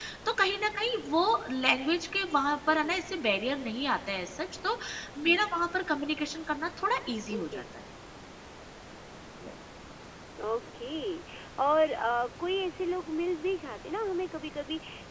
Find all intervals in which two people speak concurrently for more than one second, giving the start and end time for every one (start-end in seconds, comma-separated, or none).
none